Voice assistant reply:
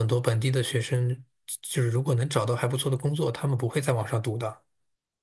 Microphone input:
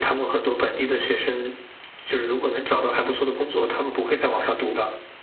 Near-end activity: none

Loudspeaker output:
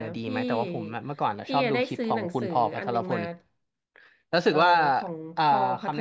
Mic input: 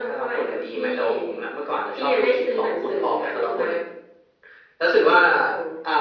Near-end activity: none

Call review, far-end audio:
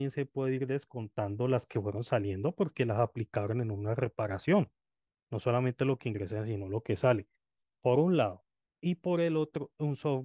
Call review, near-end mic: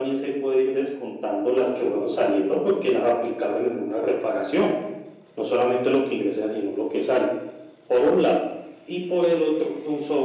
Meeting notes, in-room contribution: none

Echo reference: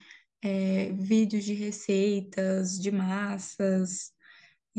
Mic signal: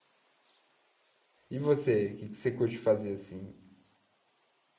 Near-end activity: present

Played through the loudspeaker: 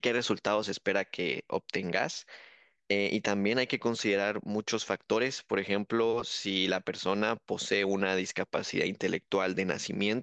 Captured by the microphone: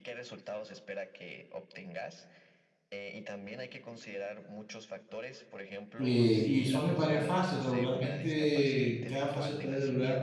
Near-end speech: present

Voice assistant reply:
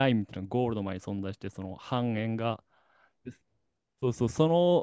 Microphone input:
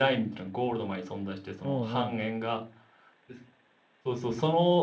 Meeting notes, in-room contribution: present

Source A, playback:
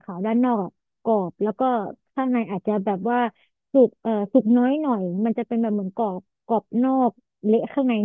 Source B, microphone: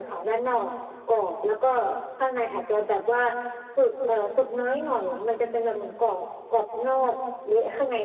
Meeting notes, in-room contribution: present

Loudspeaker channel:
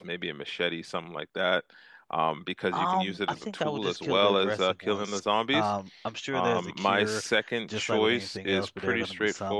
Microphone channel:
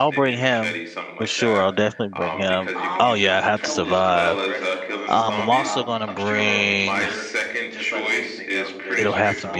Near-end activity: present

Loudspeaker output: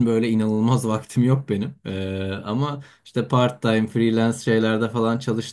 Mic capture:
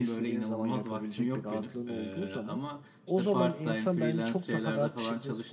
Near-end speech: present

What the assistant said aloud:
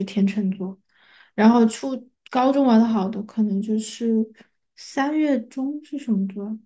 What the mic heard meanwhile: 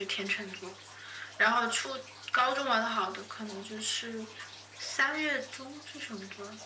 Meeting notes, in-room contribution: none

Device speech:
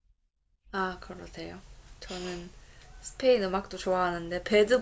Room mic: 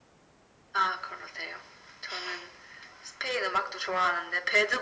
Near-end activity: none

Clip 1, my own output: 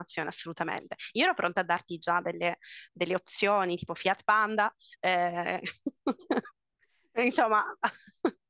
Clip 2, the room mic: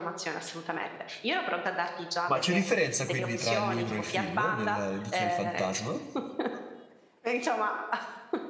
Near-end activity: present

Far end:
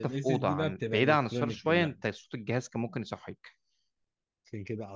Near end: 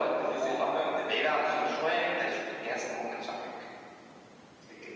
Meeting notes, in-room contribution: none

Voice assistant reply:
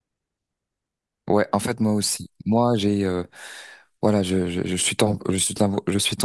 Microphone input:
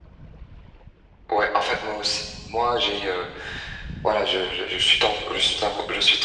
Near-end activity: none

